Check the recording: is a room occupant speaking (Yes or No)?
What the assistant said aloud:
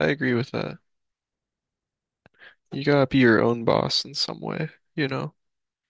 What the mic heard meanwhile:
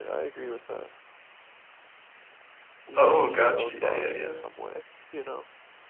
Yes